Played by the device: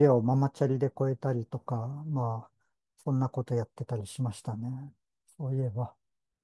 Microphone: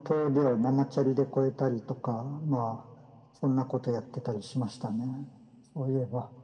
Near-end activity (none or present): none